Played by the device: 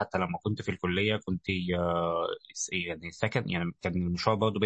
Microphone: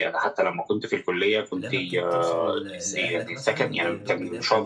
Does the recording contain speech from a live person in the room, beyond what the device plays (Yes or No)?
Yes